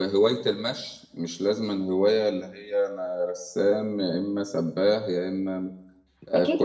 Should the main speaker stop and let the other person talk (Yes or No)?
Yes